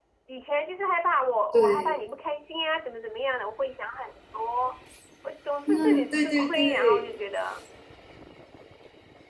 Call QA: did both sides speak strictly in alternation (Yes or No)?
No